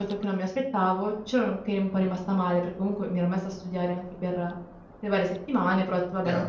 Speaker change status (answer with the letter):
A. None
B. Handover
A